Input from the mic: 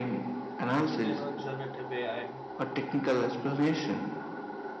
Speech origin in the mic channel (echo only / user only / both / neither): both